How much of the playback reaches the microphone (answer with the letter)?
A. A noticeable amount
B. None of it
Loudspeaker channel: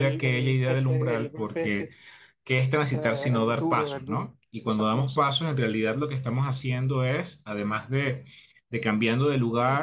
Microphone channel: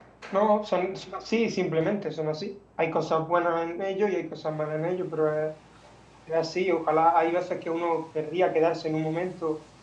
B